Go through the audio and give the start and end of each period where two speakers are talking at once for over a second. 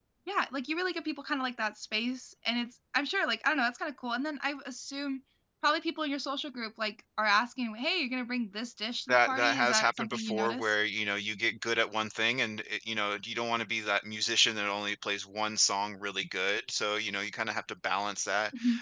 9.1-10.7

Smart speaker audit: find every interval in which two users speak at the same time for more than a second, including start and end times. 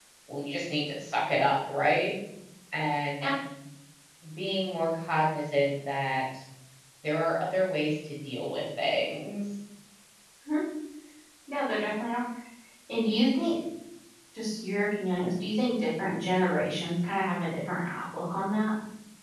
none

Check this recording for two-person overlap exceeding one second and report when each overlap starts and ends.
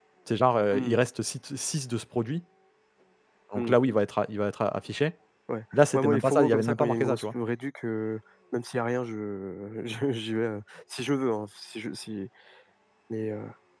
5.7-7.2

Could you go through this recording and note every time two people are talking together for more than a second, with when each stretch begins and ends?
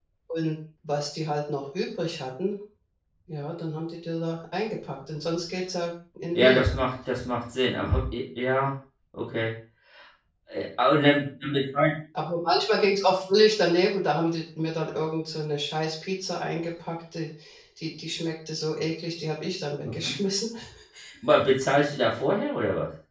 none

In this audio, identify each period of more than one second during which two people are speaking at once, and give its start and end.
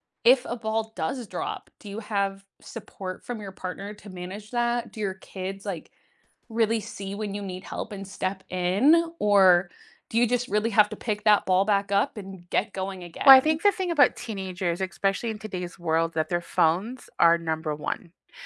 none

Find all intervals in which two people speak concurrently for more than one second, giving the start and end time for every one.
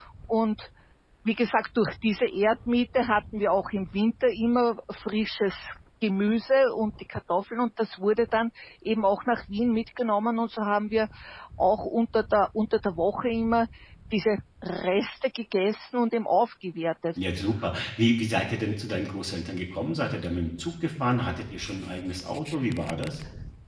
none

